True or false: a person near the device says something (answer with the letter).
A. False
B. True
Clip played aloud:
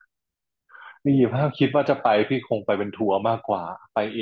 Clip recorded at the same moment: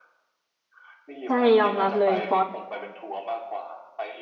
B